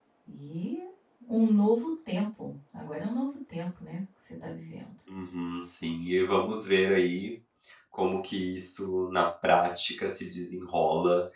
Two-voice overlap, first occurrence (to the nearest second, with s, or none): none